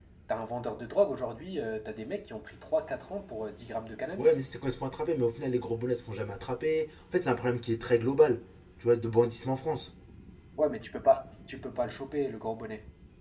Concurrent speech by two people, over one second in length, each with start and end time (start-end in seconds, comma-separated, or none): none